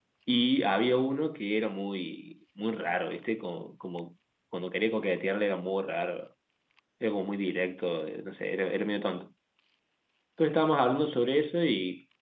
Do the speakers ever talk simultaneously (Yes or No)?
No